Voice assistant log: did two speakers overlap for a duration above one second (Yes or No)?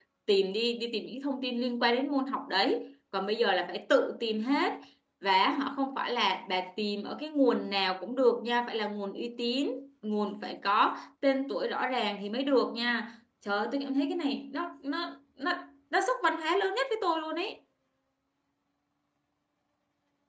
No